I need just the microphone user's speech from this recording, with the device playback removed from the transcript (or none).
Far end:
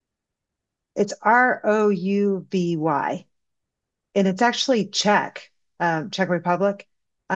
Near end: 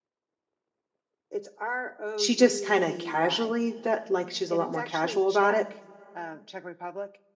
she just kind of casually that like she's a lot more casual about it